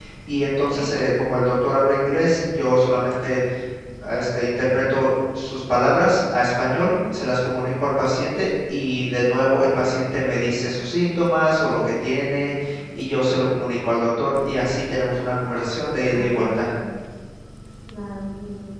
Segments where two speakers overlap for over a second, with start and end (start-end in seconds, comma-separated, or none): none